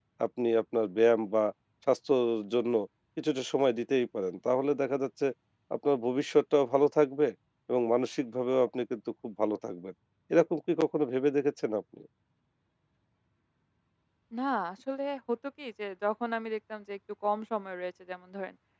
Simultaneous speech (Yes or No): No